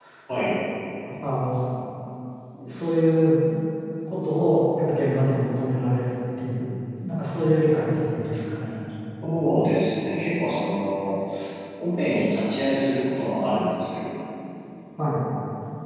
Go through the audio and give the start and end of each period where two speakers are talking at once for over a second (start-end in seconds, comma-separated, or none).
none